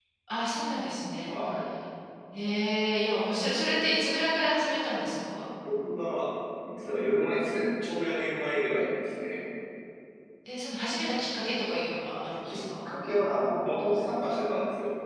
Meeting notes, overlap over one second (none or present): none